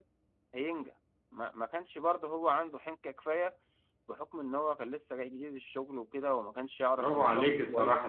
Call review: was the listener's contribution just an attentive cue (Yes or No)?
No